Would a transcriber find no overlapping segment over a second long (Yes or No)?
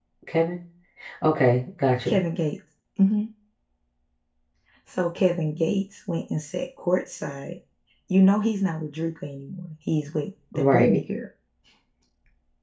Yes